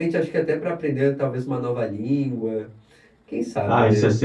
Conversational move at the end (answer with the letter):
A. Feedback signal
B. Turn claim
B